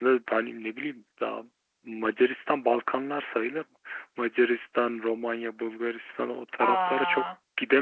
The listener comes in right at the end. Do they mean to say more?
No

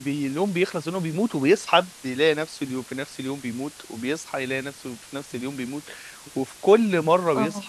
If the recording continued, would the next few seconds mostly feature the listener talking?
No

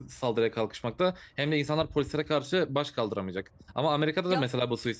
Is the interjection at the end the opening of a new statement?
No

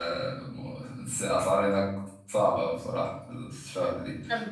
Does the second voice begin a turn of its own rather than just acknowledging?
No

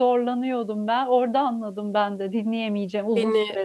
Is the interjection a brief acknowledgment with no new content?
No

